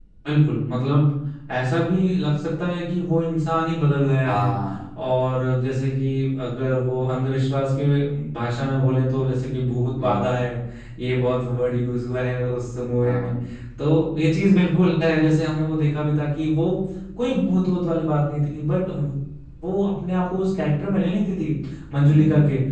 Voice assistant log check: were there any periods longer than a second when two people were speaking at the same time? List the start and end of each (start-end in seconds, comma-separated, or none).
none